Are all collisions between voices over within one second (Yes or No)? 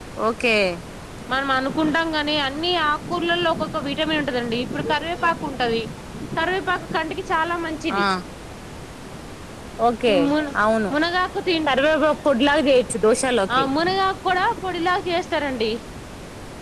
Yes